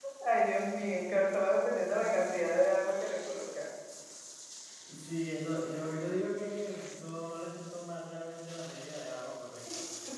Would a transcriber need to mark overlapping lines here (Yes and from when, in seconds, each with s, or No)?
No